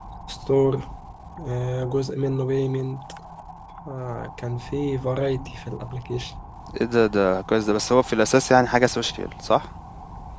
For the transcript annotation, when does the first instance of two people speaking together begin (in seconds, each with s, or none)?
none